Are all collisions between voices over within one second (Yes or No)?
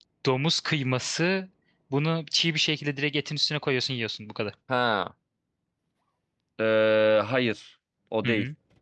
Yes